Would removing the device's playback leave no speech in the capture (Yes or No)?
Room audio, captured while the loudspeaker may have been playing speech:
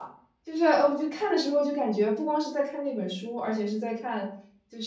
No